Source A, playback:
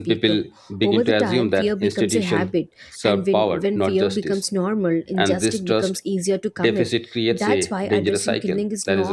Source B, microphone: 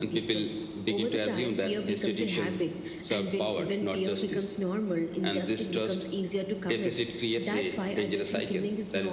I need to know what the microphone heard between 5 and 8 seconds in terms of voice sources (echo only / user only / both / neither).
echo only